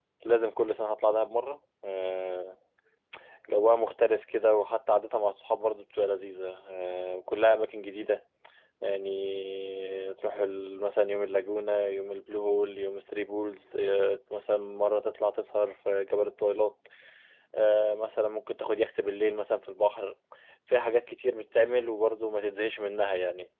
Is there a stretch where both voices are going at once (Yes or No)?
No